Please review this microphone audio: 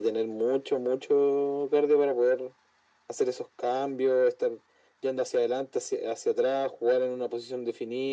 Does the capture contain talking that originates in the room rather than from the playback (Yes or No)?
No